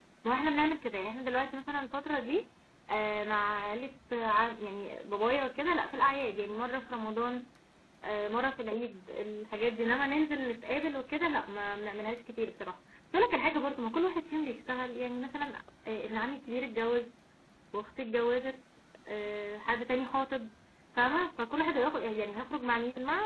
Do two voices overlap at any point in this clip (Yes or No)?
No